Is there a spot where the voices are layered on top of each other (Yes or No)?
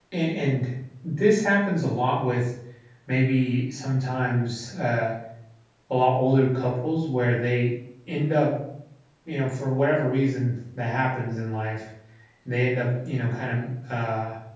No